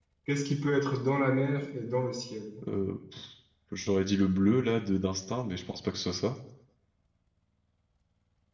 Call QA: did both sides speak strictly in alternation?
Yes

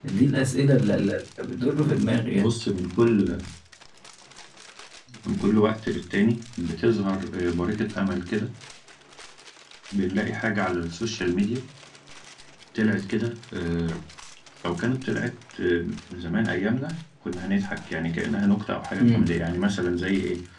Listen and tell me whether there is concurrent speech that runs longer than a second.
No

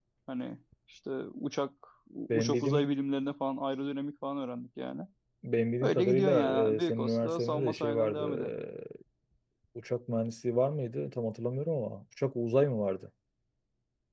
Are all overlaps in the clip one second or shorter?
No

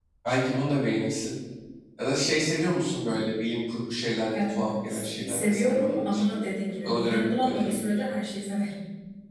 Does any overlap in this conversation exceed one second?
Yes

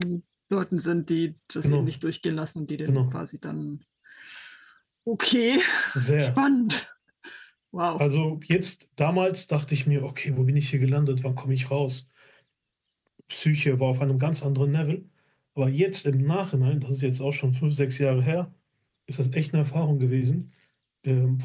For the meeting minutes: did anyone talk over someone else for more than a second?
No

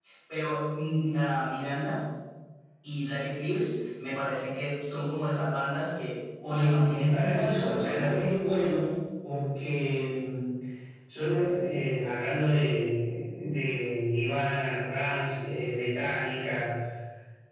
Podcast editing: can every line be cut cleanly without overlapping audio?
No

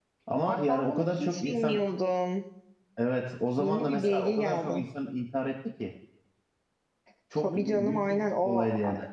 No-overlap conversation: No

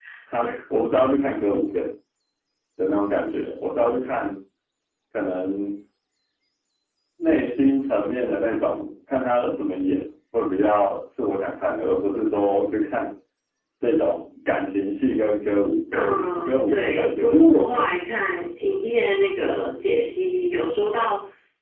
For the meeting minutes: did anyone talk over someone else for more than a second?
Yes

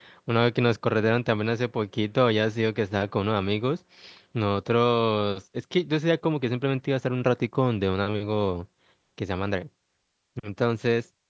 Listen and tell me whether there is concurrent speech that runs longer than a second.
No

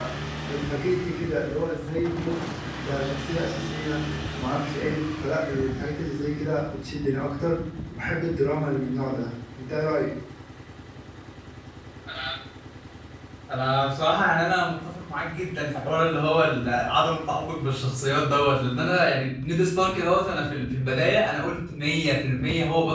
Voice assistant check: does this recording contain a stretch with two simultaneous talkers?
No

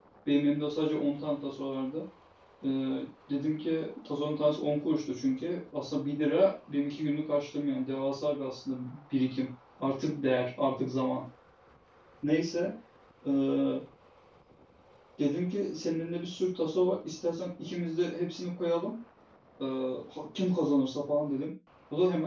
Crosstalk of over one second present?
No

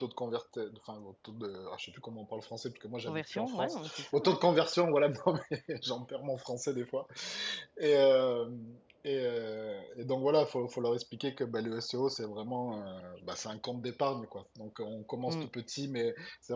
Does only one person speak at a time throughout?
No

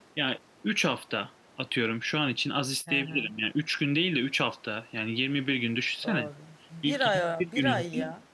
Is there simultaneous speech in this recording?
Yes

